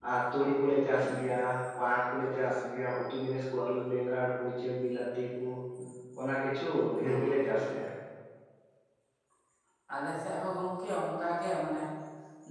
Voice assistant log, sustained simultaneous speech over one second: none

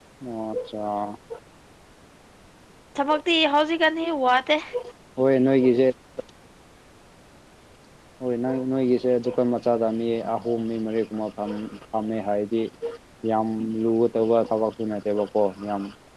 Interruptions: none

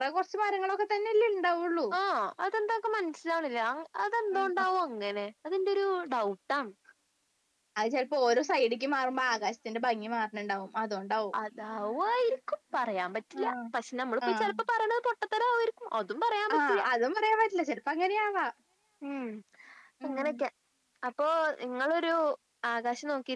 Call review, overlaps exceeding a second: none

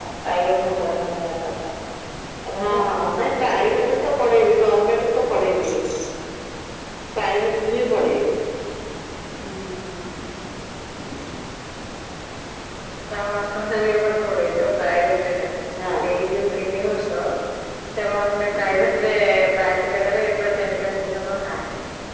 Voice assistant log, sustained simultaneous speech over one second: present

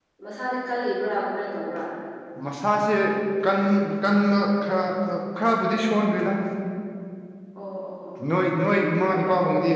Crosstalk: none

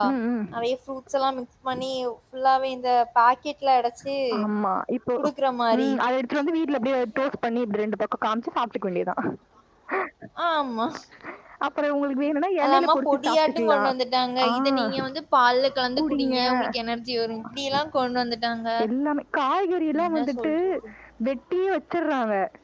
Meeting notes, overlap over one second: present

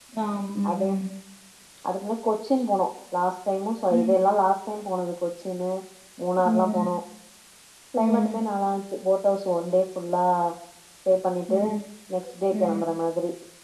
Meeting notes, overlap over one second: none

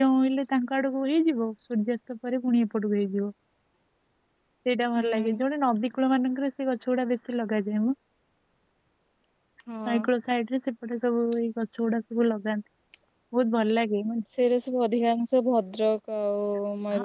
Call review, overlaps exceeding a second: none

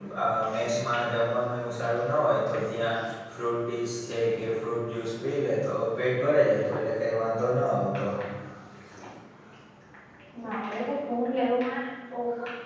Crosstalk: none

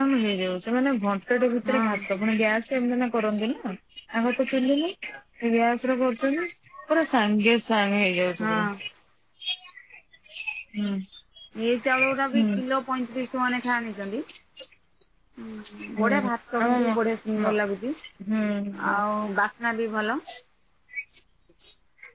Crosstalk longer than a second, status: none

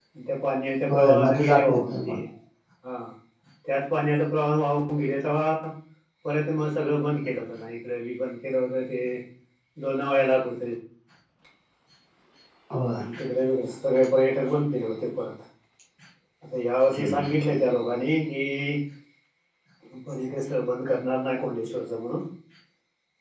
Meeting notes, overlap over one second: present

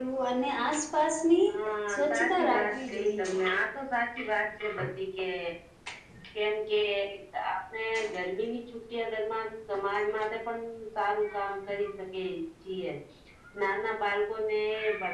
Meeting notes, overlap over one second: present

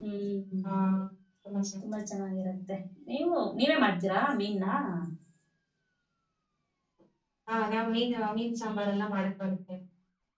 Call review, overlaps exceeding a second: none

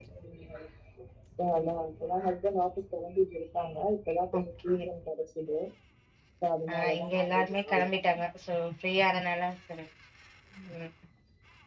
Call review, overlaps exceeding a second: present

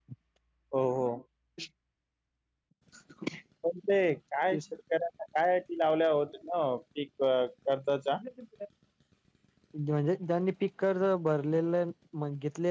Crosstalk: none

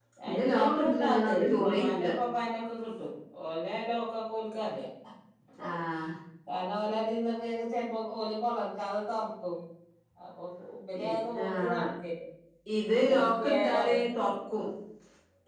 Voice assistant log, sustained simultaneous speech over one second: present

